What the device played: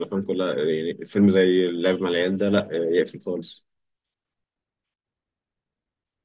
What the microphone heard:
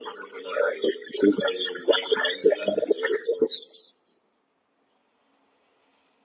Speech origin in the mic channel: echo only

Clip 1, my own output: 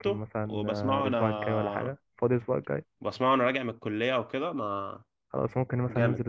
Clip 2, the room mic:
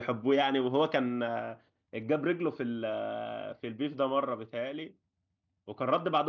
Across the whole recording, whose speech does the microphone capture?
user only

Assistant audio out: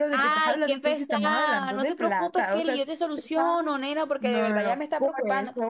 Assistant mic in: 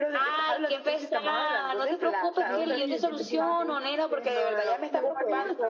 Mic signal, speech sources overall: both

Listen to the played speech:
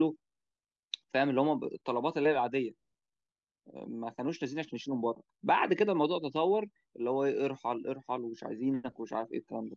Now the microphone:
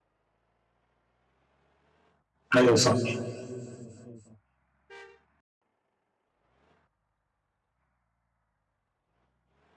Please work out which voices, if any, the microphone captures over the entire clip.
user only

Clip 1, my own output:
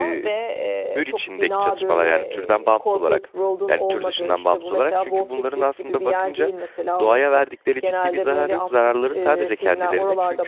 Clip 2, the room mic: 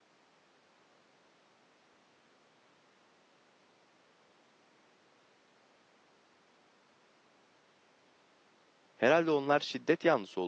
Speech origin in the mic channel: user only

